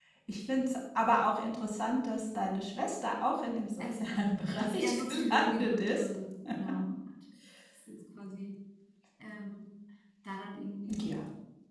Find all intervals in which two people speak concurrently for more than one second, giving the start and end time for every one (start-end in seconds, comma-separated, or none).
3.8-6.1